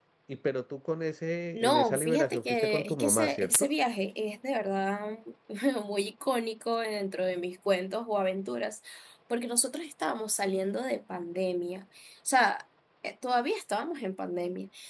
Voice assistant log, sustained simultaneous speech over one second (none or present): present